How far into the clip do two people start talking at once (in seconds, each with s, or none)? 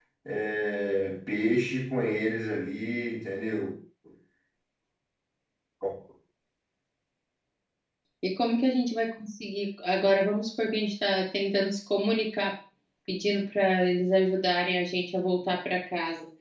none